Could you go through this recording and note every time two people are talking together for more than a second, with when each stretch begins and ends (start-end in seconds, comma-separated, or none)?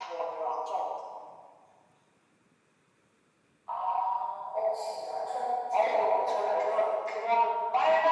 5.7-7.1